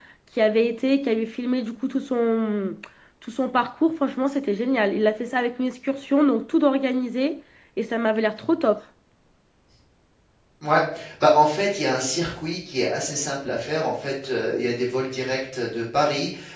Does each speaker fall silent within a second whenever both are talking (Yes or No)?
Yes